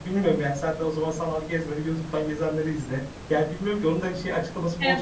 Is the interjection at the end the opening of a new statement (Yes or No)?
Yes